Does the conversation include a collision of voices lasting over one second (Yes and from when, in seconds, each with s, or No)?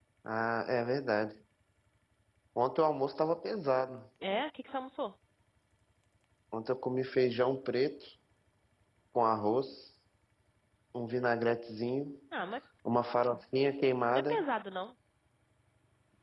No